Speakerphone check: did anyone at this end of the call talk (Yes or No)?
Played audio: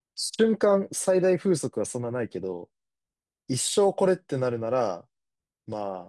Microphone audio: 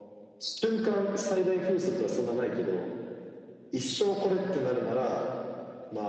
No